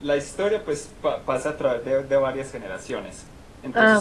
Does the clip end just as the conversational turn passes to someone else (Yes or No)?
No